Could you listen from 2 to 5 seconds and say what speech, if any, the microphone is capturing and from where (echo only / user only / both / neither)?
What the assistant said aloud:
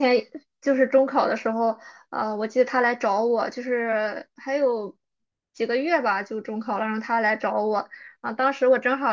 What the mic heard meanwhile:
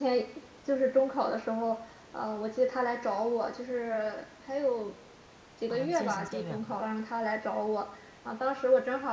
echo only